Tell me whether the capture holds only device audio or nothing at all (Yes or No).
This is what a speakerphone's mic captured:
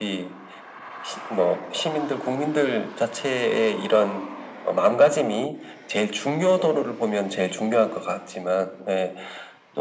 Yes